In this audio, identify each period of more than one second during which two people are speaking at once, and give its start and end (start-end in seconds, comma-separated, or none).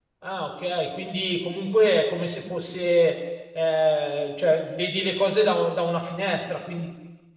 none